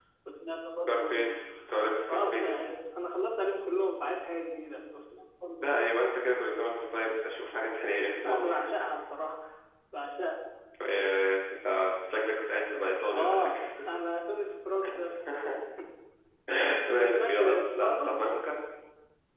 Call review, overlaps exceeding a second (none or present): present